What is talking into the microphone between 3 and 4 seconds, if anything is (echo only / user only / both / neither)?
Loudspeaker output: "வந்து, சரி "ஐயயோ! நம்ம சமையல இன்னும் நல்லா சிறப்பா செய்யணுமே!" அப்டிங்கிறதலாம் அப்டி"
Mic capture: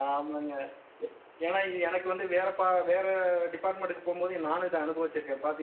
user only